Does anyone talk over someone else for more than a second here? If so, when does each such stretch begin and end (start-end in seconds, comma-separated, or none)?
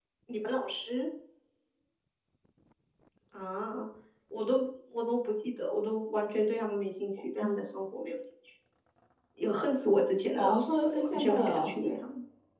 10.4-12.0